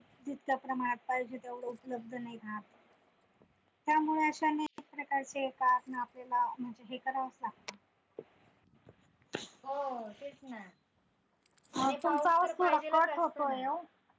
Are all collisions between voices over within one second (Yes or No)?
No